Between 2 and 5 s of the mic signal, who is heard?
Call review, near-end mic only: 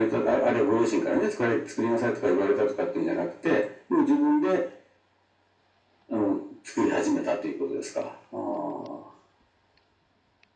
echo only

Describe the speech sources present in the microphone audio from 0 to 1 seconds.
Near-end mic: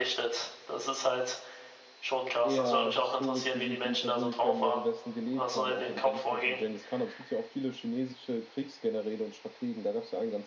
echo only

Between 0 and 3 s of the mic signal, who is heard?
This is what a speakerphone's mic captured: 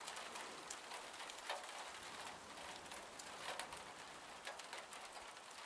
neither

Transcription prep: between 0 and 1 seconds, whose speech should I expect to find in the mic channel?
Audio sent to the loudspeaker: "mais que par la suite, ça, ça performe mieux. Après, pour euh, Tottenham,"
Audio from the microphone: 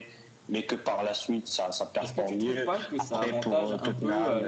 echo only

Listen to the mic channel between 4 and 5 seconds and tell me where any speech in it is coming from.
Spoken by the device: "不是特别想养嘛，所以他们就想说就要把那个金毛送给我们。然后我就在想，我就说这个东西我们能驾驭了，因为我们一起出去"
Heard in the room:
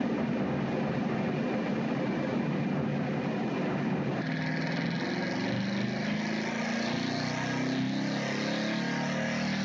neither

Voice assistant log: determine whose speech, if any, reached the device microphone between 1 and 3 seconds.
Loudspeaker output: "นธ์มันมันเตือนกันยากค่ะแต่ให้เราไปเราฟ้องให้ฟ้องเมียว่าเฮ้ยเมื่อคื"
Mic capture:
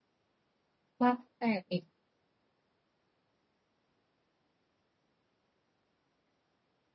user only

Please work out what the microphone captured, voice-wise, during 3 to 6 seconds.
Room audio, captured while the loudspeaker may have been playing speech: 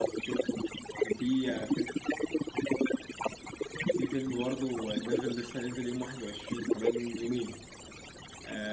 both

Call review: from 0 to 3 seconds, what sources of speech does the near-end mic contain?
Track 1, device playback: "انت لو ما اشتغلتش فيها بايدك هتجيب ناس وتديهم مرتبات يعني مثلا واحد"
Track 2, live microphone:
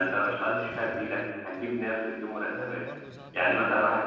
both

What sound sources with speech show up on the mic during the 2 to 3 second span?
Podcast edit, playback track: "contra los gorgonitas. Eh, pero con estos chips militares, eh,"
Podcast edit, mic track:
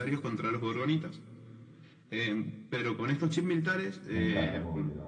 echo only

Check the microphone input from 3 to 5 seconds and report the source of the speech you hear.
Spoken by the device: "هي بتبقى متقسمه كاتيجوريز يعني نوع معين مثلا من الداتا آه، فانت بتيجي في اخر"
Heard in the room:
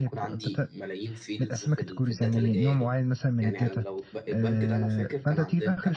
both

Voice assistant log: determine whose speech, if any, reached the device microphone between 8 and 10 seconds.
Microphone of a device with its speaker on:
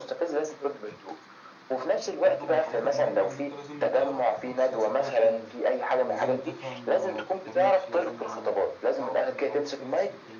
both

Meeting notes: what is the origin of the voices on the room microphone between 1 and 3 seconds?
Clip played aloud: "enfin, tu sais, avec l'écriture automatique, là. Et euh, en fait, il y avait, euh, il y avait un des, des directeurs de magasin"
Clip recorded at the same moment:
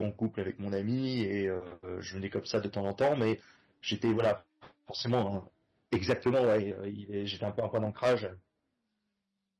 user only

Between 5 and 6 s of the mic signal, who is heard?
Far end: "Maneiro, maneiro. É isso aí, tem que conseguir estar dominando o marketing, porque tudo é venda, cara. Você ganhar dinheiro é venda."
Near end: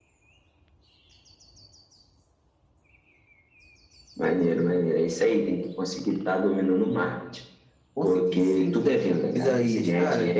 echo only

